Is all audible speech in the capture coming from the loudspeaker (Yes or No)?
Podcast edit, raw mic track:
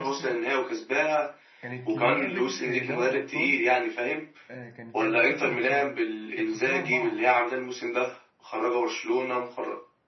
No